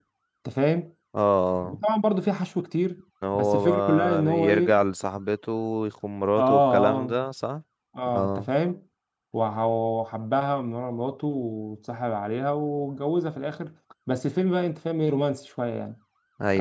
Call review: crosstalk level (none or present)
present